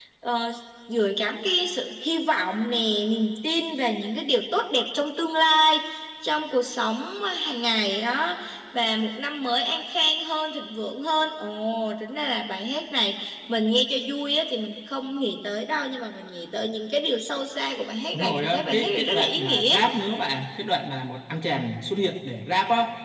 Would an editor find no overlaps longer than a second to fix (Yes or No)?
No